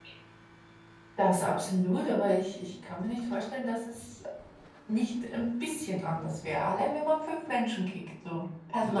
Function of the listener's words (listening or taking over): taking over